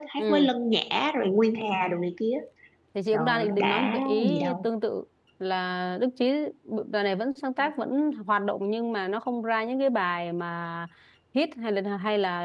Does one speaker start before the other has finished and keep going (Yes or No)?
Yes